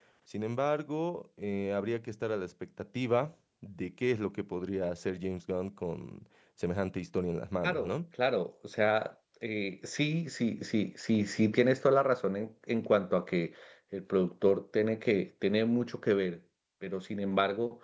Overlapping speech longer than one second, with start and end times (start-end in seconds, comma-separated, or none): none